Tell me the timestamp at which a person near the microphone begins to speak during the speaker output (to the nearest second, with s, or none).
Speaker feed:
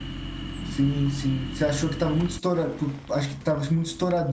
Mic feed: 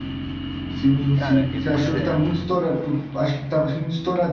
1 s